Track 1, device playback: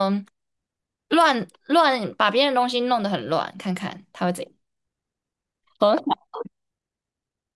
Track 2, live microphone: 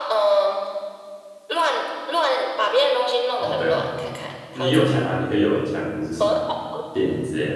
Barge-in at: 3.3 s

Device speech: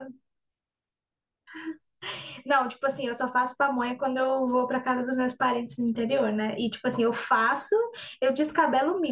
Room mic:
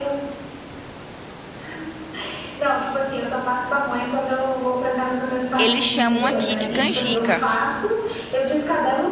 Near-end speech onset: 5.6 s

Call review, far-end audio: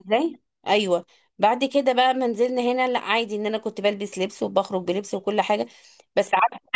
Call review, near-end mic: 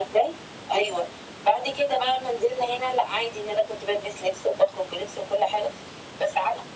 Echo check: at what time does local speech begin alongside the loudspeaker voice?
none

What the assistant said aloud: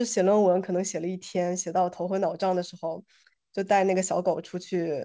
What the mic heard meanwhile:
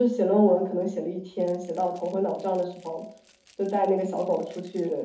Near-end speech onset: none

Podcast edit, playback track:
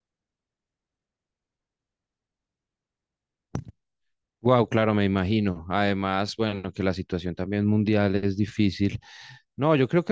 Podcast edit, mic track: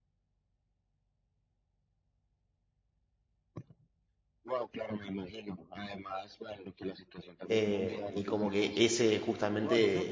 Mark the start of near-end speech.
7.5 s

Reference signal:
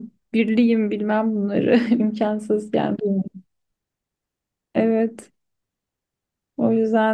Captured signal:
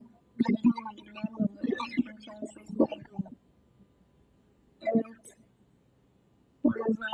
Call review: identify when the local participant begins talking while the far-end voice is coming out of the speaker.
none

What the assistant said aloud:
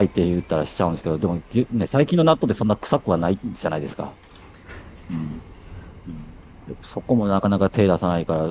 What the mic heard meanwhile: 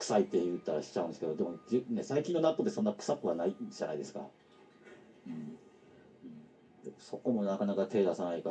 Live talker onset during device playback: none

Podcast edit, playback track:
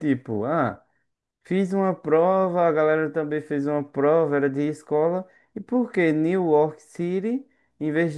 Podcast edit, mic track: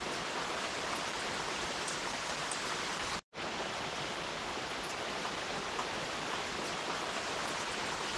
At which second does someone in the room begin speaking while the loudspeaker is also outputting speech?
none

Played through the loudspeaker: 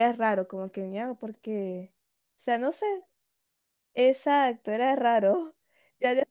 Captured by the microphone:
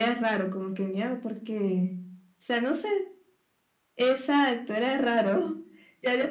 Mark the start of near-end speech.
none

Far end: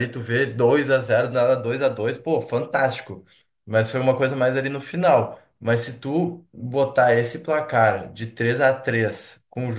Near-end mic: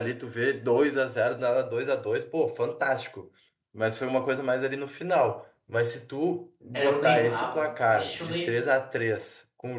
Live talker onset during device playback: 6.7 s

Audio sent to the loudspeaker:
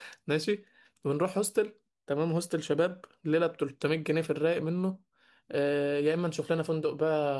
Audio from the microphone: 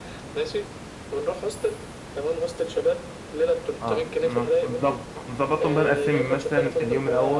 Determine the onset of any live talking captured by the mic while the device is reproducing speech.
3.8 s

